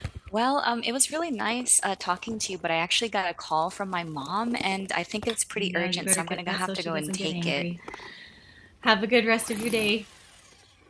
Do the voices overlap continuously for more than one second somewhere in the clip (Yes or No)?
Yes